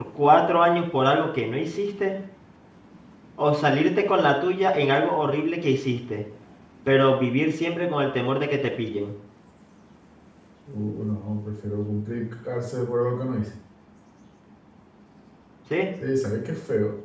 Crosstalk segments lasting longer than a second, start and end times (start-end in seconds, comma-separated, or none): none